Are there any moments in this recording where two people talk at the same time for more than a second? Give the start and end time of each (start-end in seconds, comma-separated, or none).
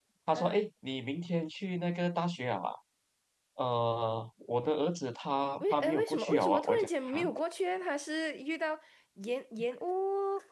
5.6-7.2